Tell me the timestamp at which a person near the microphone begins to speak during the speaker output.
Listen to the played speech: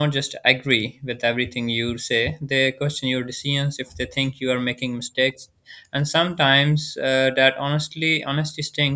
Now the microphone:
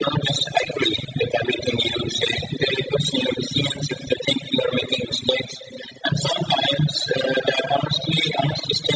none

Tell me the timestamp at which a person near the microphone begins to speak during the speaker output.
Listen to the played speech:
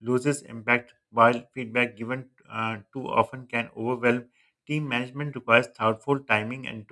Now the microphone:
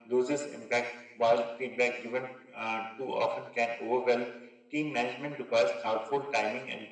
none

